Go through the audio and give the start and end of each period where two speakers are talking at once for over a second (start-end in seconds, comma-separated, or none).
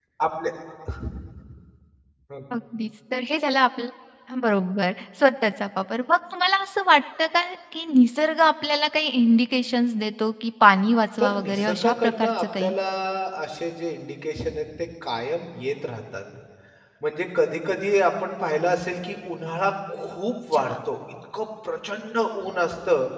11.2-12.7